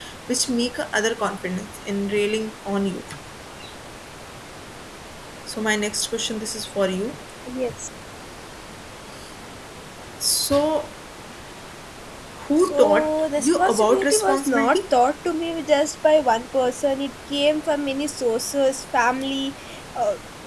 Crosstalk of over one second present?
Yes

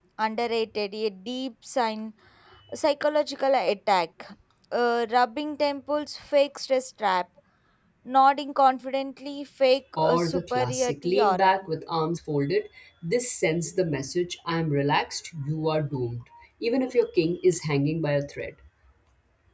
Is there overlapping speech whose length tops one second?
Yes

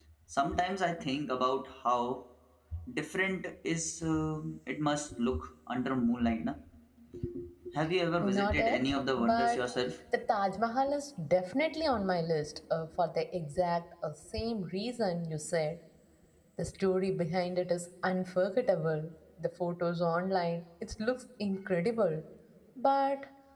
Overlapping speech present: Yes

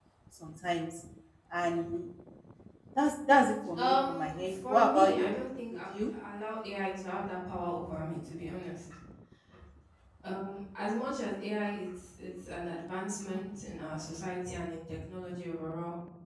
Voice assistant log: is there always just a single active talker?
No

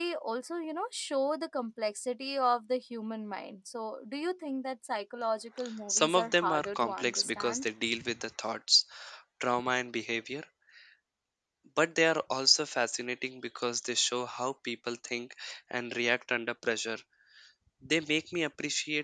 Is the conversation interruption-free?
No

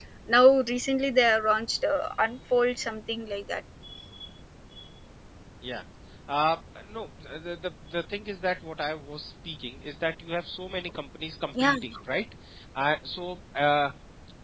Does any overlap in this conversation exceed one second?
No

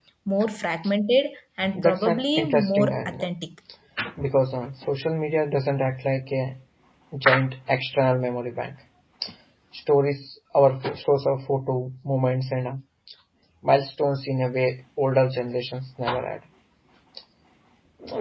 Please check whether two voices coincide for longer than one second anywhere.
Yes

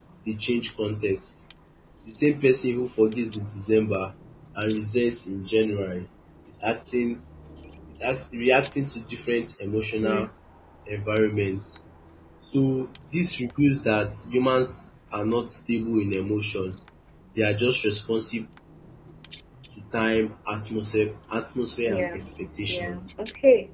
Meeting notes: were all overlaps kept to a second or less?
Yes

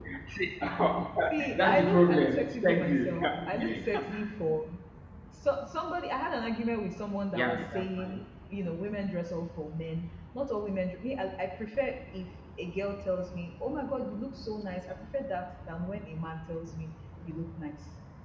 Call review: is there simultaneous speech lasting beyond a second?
Yes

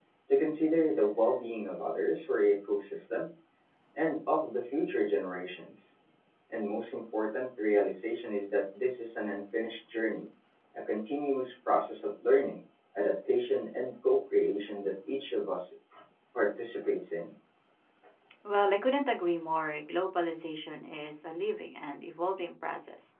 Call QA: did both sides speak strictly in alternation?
Yes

